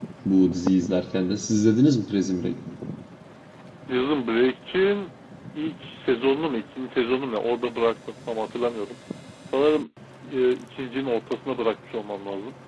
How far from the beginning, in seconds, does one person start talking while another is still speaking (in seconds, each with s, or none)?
none